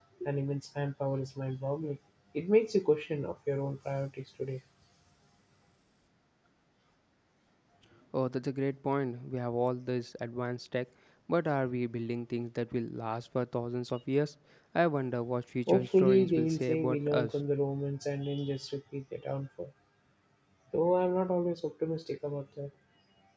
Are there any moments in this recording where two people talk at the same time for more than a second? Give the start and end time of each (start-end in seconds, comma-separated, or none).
15.7-17.3